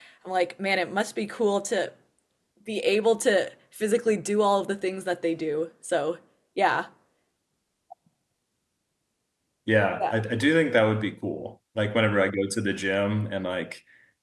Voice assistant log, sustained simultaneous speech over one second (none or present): none